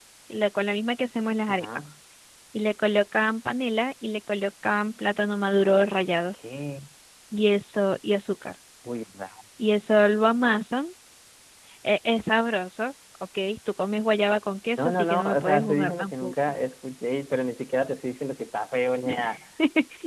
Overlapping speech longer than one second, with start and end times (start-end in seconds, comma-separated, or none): 14.8-16.3